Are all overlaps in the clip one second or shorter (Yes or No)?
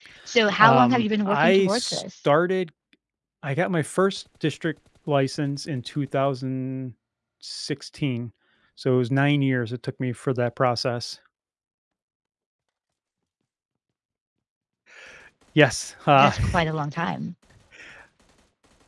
No